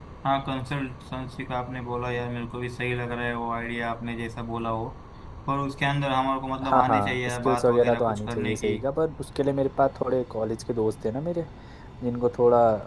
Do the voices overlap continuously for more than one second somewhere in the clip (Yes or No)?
Yes